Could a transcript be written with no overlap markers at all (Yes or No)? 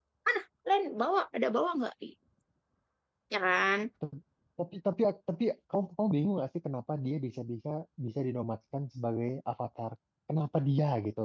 Yes